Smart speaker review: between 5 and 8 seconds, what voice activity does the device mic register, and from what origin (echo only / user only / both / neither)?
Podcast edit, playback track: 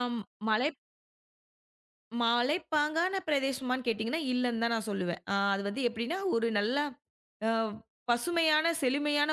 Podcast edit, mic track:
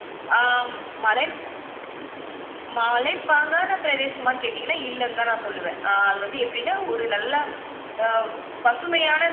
echo only